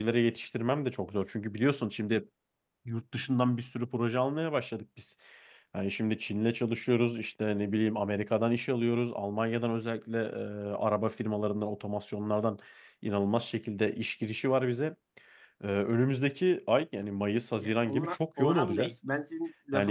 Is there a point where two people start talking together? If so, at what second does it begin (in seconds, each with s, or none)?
17.6 s